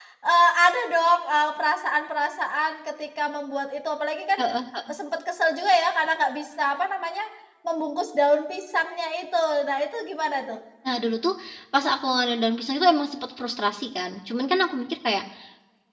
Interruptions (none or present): none